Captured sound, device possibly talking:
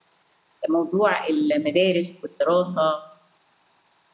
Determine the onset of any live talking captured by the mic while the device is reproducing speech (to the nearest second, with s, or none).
1 s